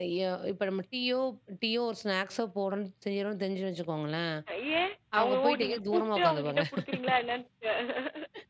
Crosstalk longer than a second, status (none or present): present